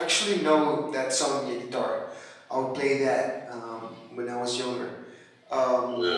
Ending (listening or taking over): listening